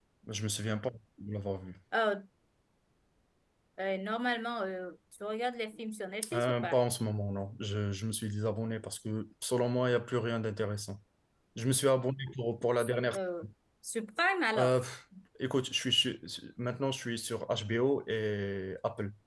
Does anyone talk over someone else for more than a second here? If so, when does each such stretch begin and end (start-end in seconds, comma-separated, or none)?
none